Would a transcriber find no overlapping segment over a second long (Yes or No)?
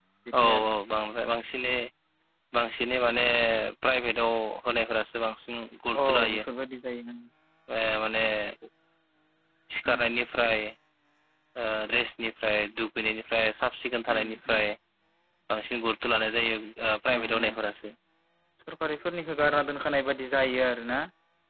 Yes